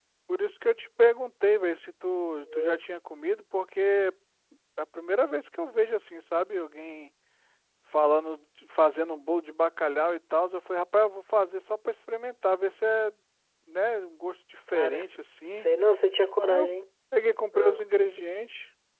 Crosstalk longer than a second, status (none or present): none